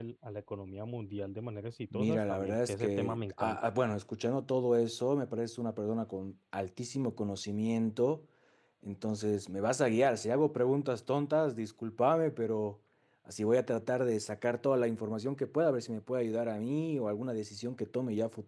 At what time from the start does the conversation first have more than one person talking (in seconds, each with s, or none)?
1.9 s